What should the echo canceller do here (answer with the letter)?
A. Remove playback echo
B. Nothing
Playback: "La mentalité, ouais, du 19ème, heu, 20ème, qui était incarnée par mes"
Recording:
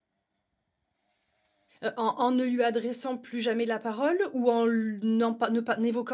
B